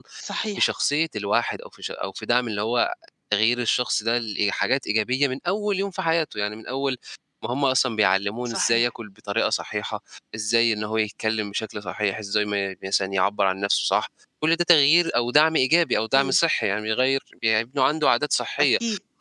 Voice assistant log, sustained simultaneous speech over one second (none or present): none